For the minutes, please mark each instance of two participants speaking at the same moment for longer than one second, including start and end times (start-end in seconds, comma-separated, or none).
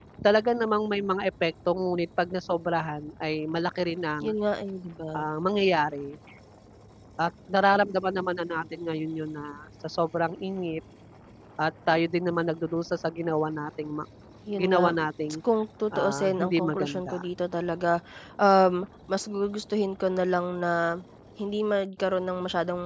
15.9-17.2